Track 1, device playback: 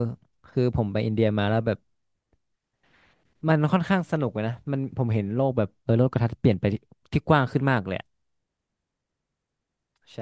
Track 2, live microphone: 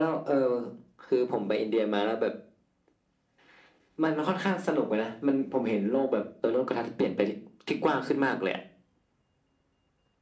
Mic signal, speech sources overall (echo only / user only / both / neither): echo only